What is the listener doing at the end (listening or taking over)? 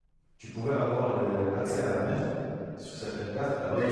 taking over